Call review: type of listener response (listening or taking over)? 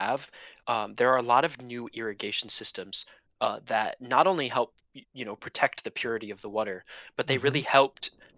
listening